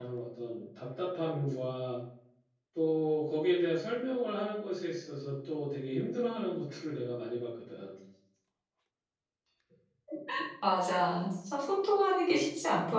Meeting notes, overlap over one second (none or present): none